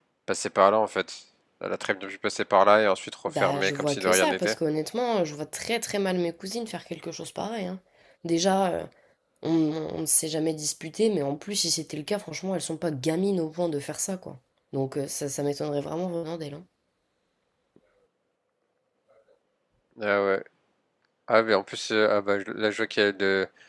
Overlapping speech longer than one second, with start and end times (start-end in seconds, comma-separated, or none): 3.3-4.5